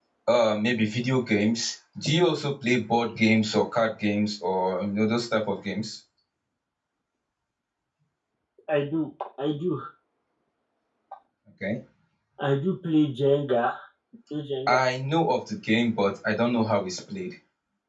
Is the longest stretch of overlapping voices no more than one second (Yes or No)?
Yes